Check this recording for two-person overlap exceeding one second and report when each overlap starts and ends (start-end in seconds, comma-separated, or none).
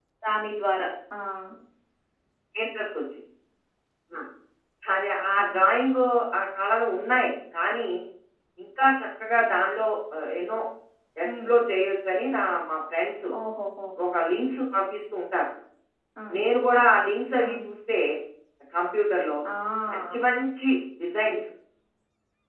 none